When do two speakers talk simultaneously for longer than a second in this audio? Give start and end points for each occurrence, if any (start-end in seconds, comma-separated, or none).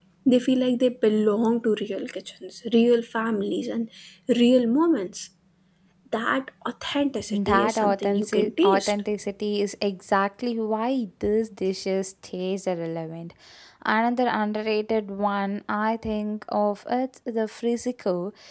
7.3-8.9